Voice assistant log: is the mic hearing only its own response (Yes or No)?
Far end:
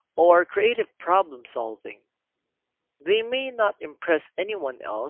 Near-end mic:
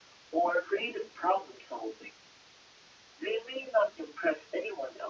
Yes